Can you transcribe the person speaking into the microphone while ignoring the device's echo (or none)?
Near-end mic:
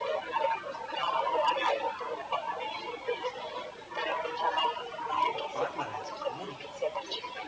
parlane, comunica